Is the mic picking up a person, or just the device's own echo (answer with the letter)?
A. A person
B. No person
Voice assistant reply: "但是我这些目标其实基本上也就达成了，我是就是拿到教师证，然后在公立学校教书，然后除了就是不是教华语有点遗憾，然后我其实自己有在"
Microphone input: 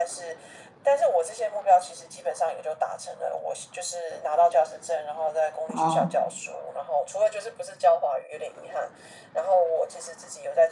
A